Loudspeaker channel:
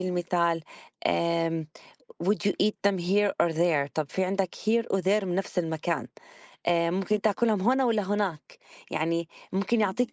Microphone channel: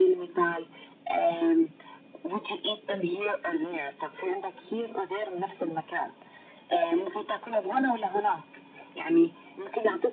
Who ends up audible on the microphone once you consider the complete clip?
echo only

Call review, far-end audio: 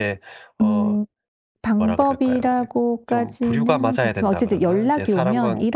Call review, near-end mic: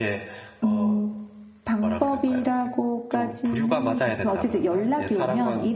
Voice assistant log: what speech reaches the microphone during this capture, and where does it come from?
echo only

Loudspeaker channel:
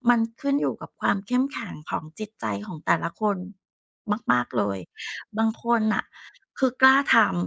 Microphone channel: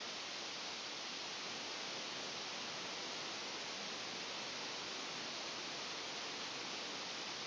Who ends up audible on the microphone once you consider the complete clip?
neither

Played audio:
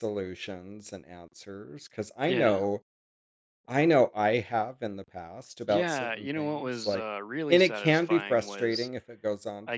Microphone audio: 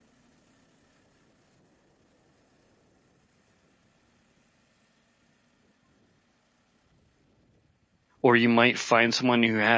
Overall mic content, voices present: user only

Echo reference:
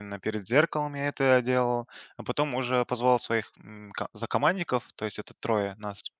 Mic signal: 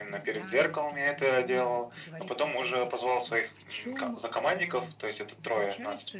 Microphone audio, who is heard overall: both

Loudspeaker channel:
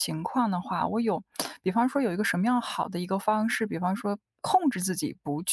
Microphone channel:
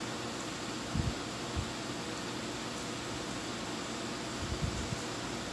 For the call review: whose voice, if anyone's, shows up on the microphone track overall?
neither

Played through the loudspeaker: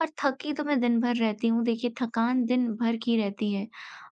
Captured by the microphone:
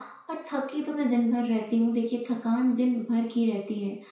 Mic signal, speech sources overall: echo only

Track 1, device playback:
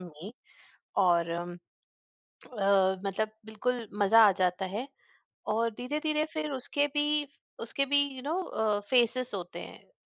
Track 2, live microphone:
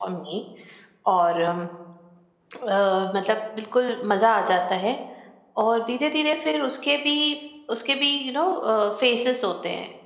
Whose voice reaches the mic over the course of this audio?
echo only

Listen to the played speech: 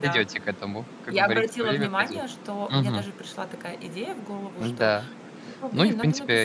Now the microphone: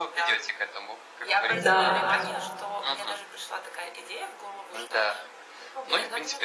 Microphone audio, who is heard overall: both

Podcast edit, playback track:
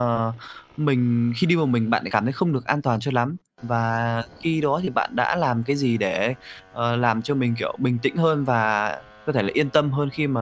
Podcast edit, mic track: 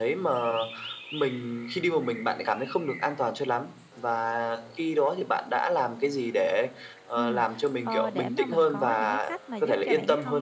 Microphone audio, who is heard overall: both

